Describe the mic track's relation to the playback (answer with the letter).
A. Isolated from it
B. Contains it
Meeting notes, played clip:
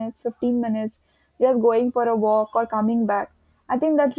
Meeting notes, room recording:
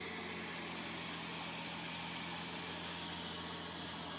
A